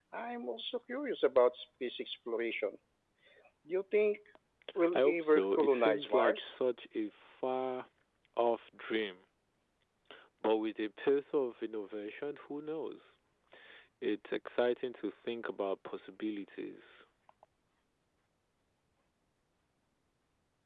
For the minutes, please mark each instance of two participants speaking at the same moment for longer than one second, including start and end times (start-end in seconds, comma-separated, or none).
4.9-6.5